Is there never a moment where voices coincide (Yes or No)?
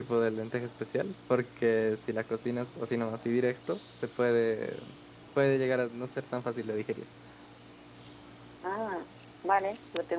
Yes